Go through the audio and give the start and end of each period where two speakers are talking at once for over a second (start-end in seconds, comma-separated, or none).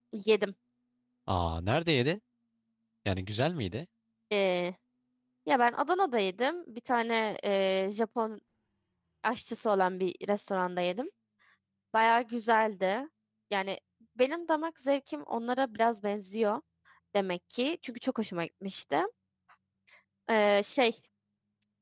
none